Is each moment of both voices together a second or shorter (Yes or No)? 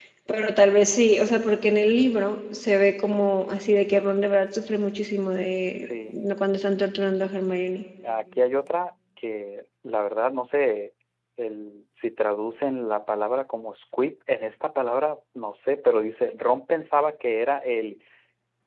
Yes